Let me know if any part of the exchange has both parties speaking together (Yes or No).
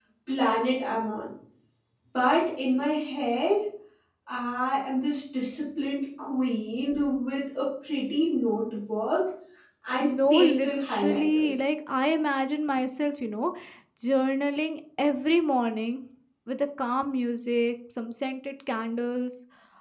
Yes